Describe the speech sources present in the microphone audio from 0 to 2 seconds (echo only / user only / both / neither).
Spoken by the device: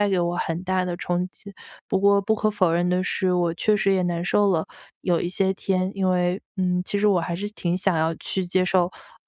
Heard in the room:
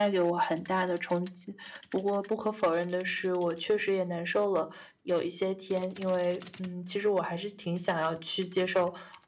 echo only